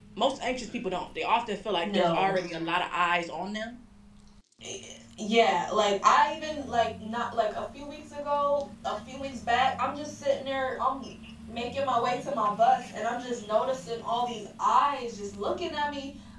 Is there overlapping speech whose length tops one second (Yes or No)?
No